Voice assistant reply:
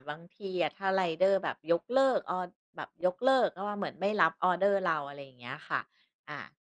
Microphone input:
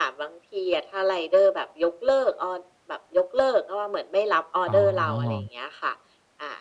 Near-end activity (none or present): present